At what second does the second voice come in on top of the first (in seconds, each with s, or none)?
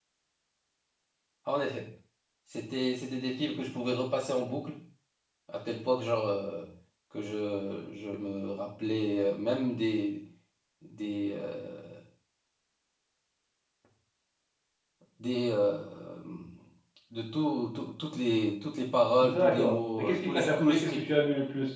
19.2 s